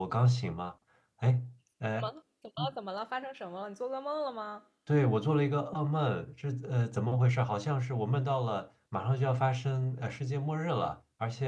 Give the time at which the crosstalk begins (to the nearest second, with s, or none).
none